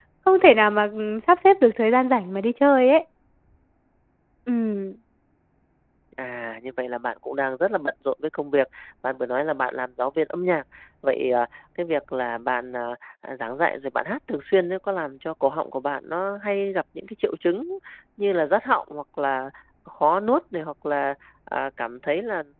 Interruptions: none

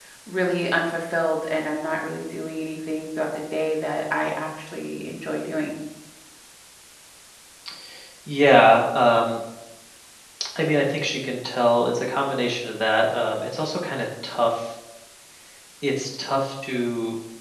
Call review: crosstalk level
none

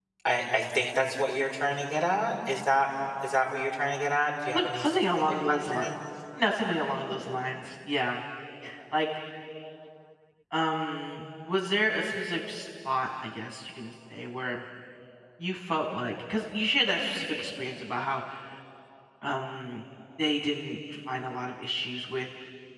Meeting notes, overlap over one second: present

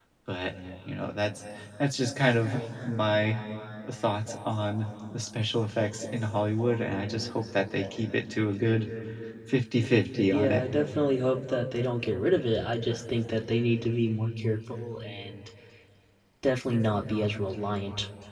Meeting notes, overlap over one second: none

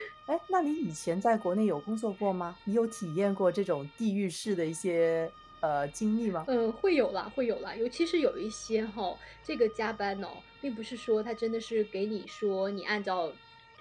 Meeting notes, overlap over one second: none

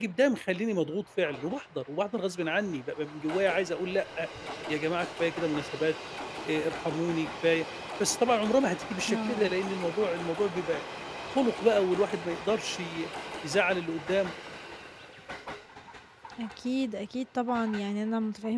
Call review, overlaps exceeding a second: none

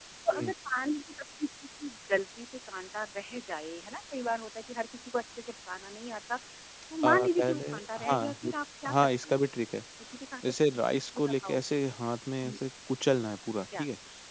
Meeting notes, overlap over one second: present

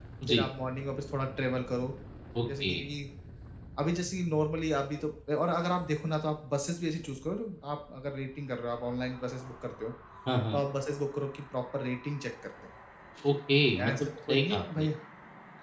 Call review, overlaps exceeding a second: present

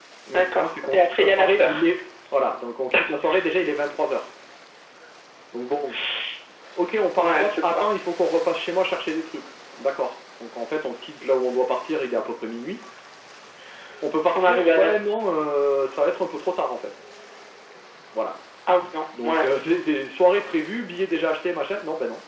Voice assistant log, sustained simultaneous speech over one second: present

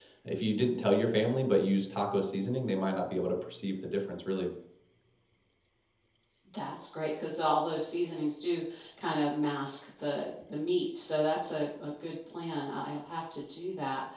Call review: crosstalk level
none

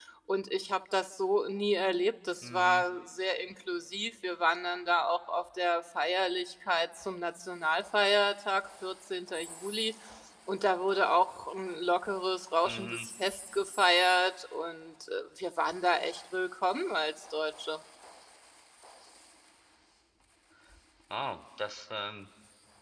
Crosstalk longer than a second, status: none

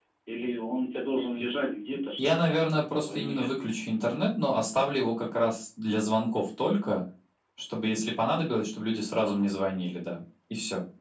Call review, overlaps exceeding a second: present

